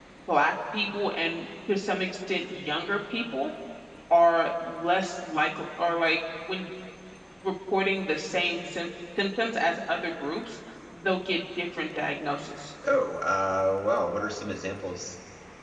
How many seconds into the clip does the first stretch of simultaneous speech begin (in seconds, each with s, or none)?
none